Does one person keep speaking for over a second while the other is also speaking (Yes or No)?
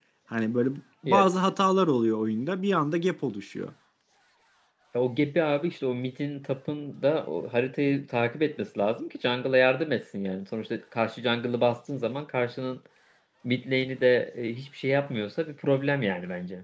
No